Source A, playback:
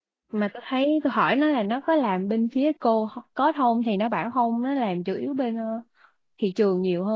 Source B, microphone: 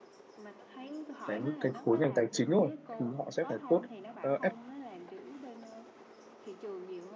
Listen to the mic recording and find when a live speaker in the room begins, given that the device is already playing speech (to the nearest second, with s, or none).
1 s